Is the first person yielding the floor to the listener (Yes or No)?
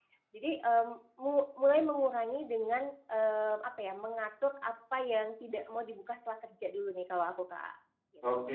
Yes